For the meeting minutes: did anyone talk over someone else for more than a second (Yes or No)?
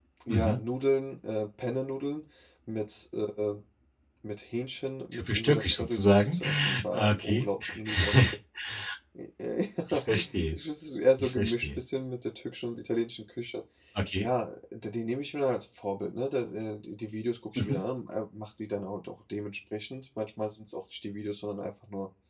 Yes